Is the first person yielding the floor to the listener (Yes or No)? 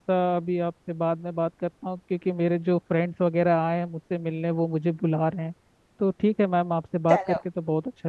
No